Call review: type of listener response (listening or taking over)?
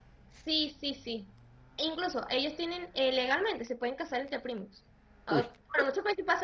listening